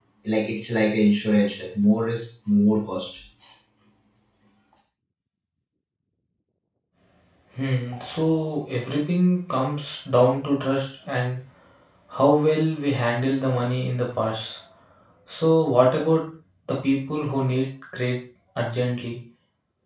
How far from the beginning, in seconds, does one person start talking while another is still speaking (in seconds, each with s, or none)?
none